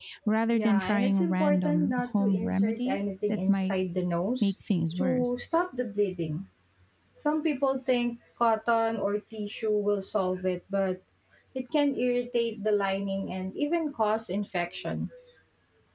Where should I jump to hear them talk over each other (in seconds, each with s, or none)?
0.5 s